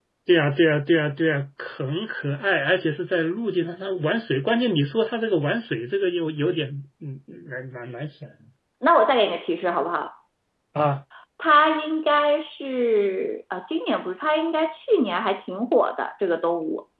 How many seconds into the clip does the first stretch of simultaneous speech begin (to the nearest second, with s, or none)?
none